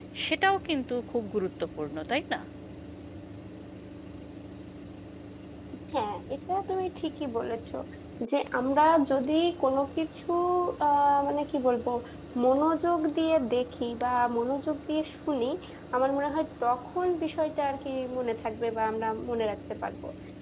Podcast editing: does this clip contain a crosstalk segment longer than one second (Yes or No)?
No